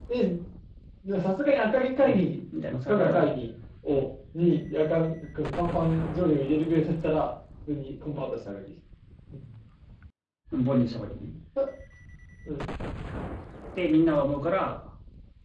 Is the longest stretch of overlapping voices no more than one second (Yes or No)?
Yes